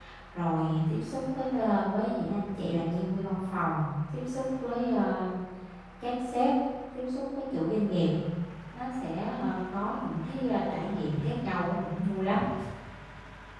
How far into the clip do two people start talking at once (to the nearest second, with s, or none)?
none